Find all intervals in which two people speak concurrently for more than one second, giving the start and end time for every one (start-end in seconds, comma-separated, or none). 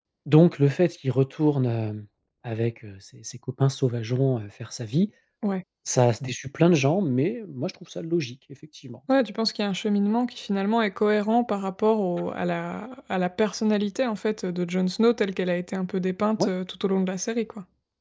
none